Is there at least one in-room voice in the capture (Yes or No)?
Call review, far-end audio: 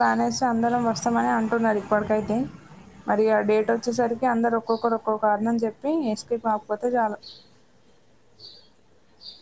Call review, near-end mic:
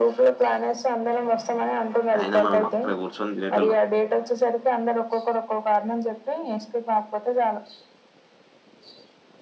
Yes